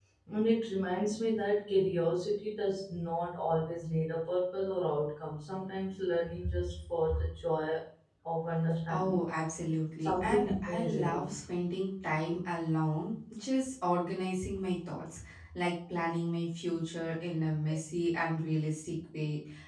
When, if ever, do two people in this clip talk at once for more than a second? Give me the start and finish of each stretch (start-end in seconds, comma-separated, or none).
10.0-11.3